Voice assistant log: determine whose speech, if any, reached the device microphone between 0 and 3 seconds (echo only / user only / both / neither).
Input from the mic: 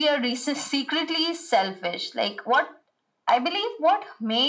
echo only